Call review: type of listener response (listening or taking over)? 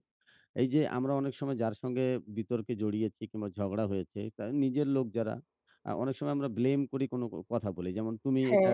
listening